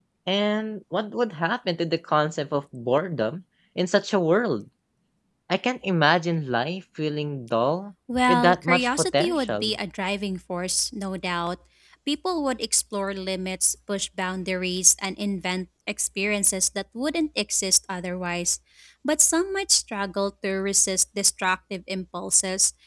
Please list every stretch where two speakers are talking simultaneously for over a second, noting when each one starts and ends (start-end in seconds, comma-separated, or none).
8.3-9.8